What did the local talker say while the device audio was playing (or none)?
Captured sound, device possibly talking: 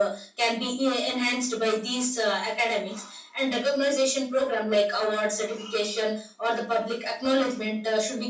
none